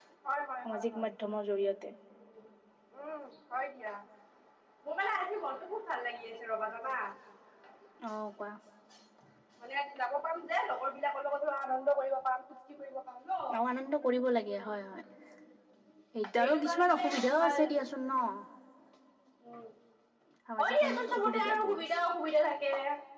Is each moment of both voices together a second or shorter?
No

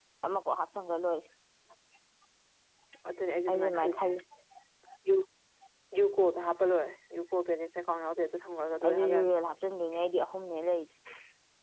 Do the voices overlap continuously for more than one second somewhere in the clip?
No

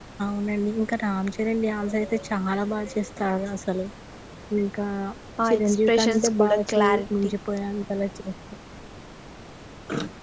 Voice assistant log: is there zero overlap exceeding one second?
No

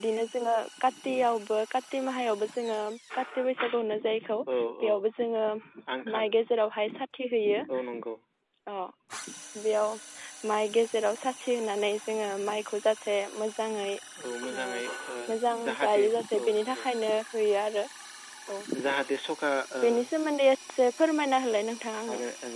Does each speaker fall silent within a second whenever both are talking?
No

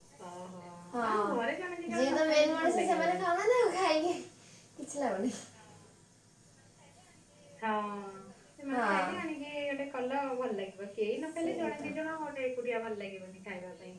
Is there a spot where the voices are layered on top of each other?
Yes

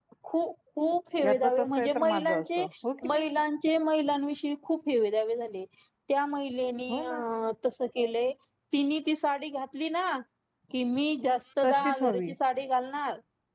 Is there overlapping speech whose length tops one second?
Yes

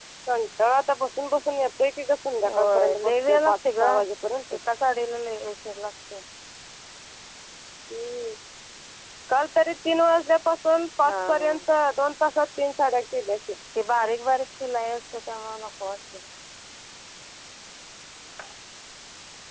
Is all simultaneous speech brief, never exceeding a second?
No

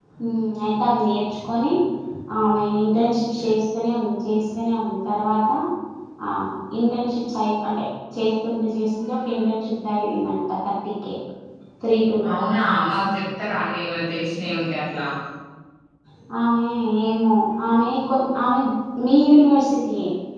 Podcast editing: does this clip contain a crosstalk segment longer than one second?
No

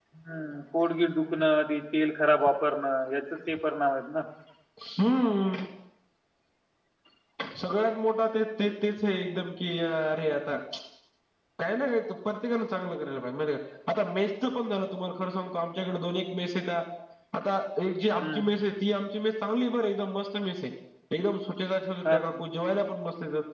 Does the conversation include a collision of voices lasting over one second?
No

